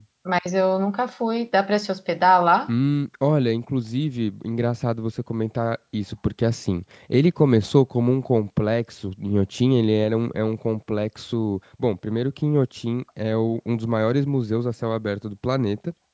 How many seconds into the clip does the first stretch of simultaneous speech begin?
none

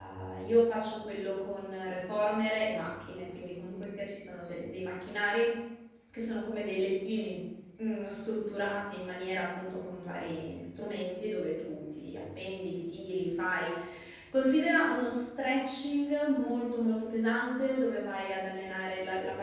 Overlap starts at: none

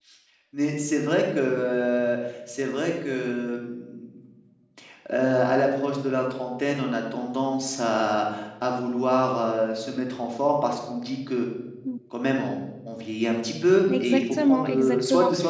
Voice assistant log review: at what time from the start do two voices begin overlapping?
13.9 s

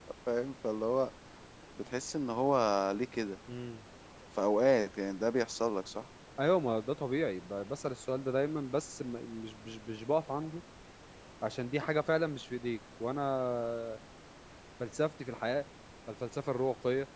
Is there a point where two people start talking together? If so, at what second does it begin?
none

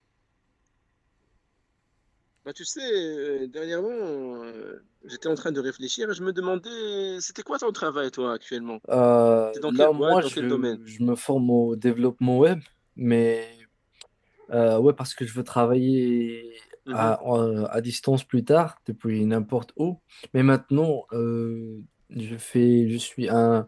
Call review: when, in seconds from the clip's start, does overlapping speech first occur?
9.5 s

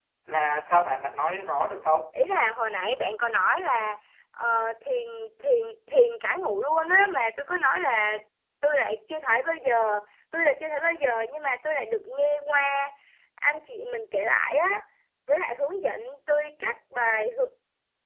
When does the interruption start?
none

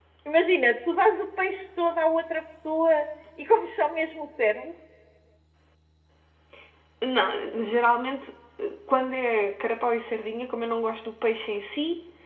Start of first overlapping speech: none

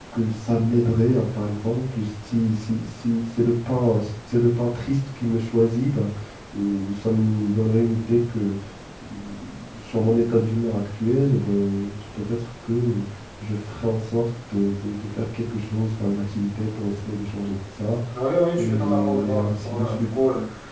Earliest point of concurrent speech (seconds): 18.6 s

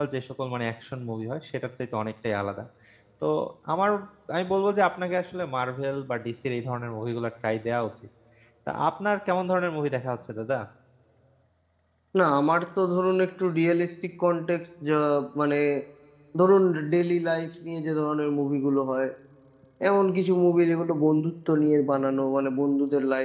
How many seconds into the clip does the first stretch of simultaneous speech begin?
none

